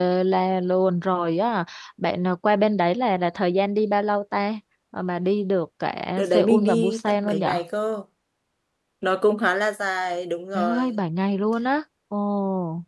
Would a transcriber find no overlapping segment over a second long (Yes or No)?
No